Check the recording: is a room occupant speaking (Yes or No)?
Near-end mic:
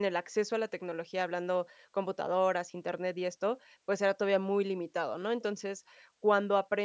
Yes